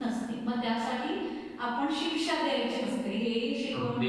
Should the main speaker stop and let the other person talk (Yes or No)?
Yes